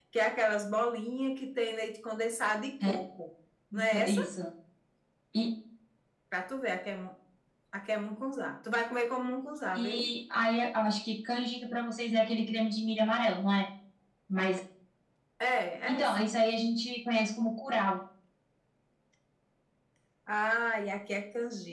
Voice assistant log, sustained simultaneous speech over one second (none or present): none